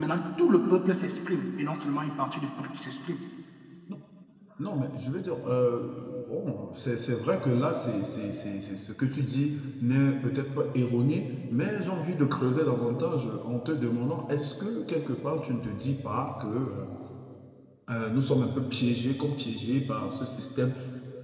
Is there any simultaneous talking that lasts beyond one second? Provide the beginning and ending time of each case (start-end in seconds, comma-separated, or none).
none